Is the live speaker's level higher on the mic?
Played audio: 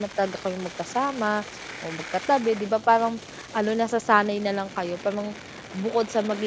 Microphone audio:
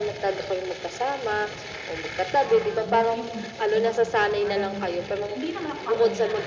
No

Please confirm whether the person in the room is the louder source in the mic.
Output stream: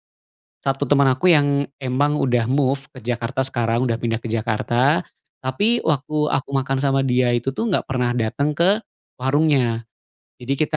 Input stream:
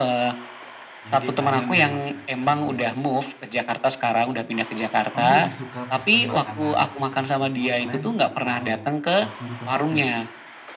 No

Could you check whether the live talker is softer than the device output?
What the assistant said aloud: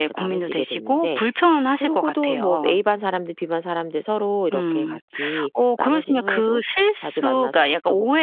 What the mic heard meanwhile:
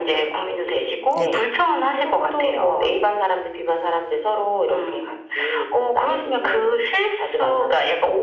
Yes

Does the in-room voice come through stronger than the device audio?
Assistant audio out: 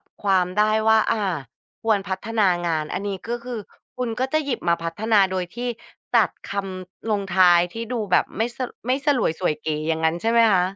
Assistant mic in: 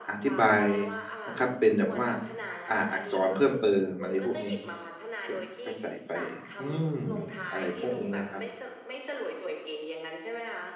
Yes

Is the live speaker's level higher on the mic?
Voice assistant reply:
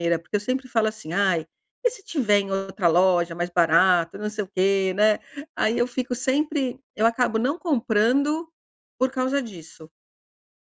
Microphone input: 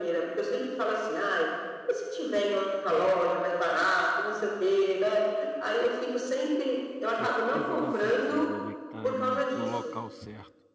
No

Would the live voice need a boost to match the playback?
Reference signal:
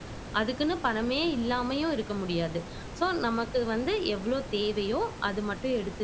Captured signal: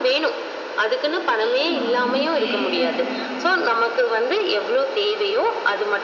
Yes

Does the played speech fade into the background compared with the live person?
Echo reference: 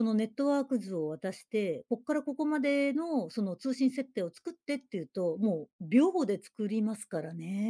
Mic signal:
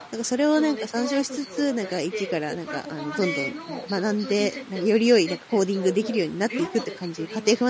Yes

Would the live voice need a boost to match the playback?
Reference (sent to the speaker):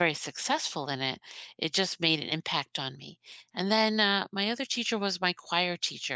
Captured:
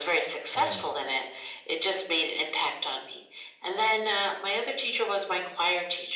Yes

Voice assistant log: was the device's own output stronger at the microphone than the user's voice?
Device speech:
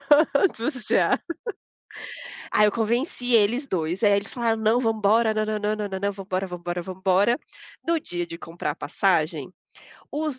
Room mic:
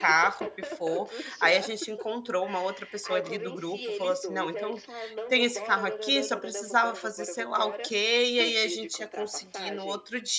No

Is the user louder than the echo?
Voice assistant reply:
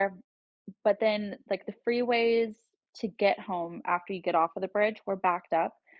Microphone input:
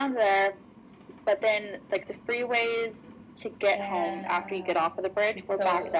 No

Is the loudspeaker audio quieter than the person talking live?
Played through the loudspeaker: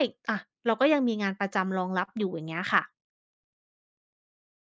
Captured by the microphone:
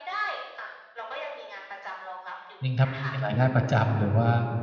Yes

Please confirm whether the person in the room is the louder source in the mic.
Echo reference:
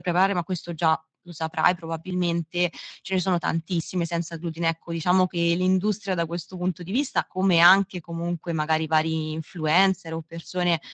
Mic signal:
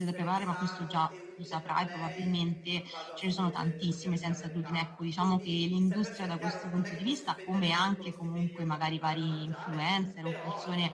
No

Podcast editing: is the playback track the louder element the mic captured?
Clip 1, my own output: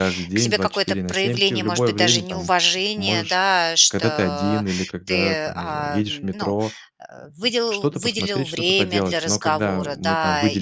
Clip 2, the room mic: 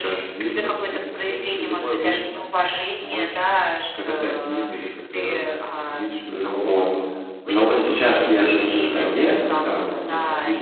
No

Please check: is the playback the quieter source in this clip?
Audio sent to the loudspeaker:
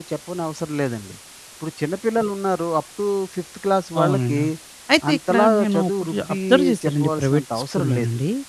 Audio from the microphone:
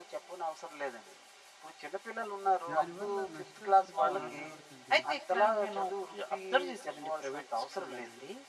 No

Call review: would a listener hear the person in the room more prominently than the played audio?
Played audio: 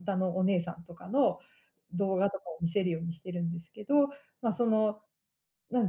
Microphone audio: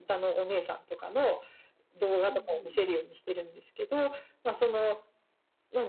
No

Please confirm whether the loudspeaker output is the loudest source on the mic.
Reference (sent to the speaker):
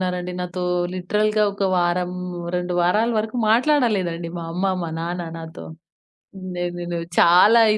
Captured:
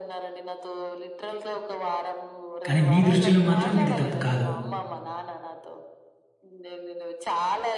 No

